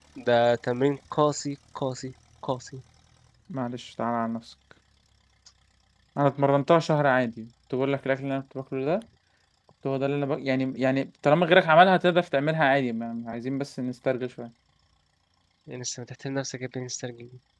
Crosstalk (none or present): none